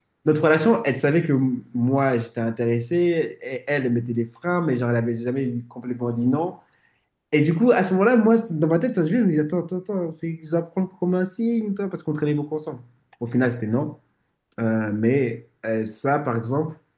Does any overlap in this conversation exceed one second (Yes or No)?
No